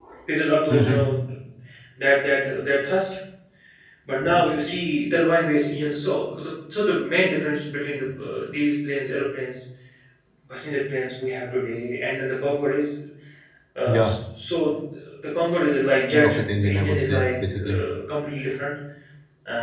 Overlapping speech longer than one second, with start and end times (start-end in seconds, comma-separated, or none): 16.1-17.8